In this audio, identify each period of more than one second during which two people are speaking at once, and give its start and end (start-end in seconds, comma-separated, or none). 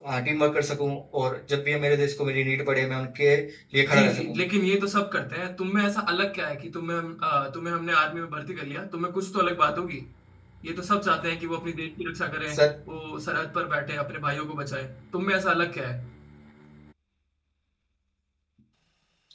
none